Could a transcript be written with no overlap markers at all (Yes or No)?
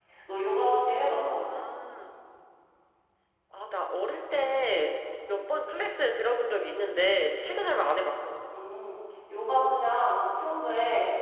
Yes